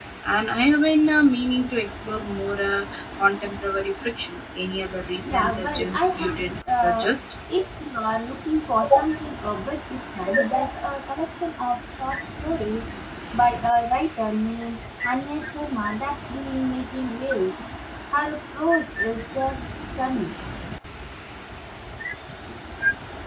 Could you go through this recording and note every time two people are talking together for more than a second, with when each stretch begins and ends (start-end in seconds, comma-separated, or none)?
5.2-7.1